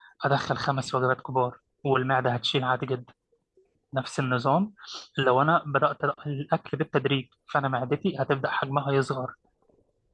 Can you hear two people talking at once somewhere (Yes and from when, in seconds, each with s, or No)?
No